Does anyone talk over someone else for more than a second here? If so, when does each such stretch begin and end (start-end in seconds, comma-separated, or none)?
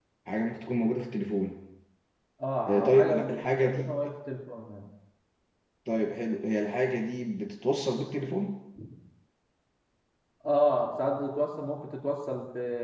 2.7-3.9